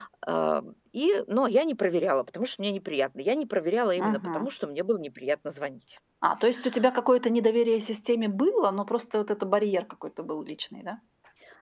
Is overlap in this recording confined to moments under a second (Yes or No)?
Yes